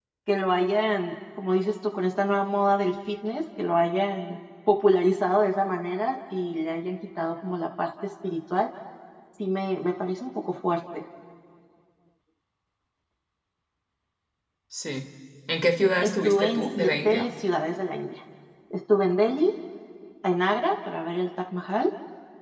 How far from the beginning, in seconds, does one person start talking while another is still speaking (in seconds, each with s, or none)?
16.0 s